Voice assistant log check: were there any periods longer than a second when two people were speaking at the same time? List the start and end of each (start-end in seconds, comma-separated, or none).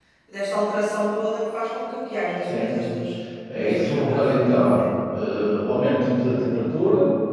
3.6-4.9